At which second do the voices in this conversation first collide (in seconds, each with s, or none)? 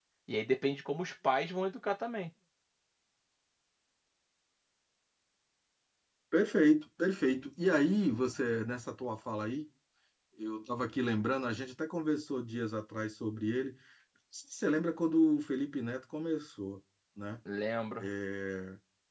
none